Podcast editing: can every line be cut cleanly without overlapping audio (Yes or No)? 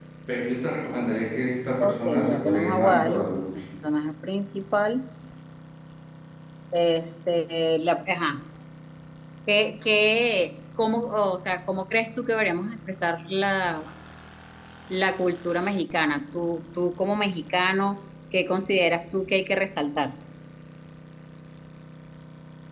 No